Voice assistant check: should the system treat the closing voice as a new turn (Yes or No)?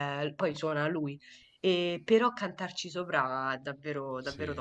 Yes